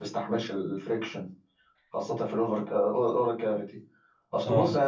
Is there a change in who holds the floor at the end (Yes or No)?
No